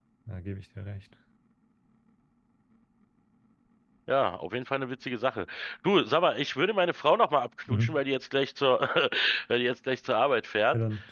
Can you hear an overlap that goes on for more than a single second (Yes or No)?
No